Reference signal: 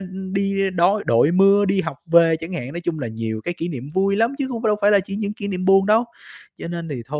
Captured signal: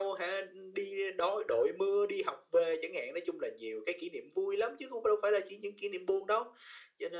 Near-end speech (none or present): none